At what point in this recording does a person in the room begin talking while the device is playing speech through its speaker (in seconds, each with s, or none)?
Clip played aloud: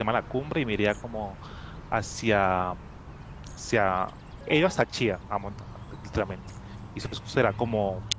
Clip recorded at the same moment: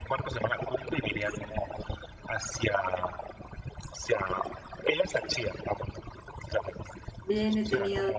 7.2 s